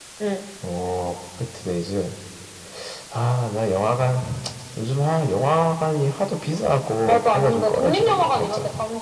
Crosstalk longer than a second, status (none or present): present